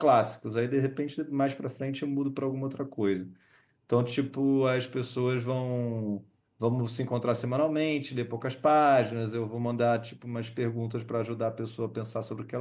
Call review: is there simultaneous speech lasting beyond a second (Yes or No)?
No